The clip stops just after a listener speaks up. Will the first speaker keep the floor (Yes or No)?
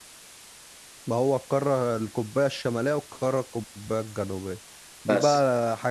Yes